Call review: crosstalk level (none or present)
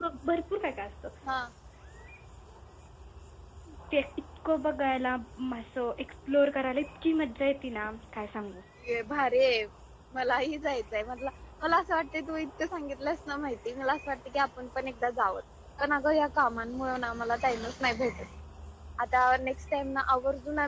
none